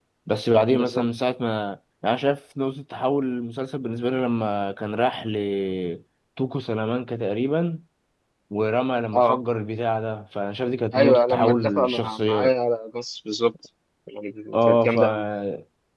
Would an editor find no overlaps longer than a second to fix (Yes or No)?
No